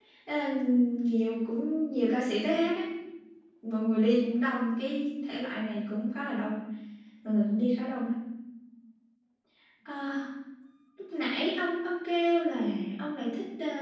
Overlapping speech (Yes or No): No